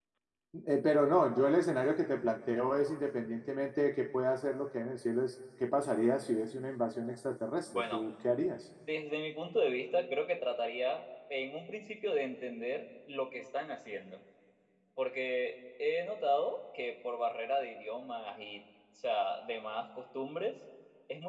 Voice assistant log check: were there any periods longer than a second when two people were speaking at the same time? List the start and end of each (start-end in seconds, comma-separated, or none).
none